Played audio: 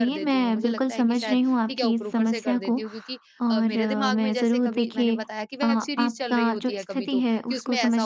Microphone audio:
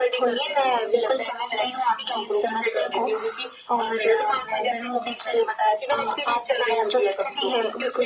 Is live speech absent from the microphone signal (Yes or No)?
Yes